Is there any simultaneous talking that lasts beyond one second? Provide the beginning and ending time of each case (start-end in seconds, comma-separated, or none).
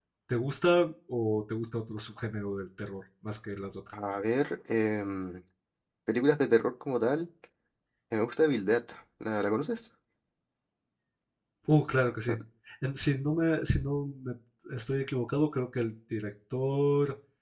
none